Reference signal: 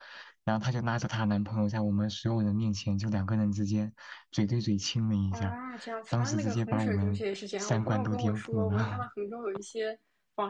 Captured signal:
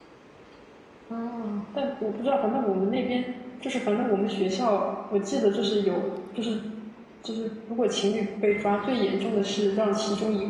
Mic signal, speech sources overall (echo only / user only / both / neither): user only